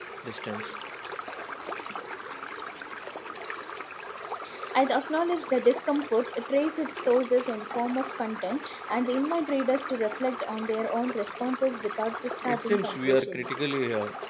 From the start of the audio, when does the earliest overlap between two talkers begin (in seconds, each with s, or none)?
12.4 s